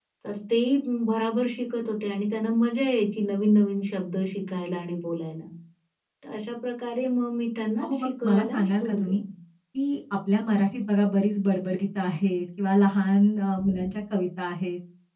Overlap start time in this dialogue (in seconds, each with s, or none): 7.8 s